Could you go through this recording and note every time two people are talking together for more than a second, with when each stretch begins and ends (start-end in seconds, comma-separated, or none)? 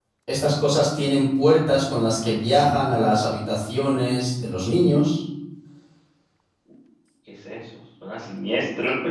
none